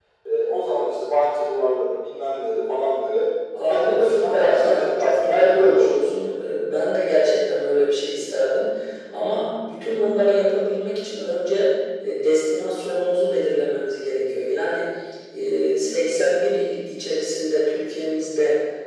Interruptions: present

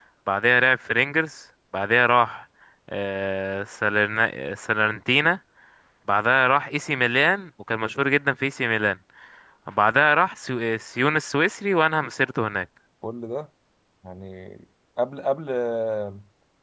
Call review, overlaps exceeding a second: none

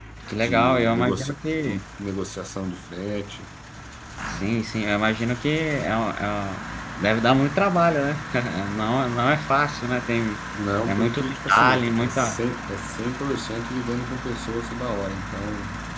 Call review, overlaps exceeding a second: present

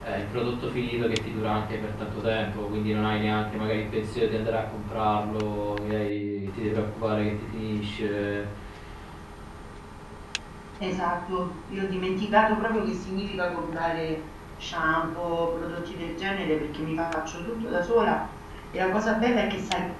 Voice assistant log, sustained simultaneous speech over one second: none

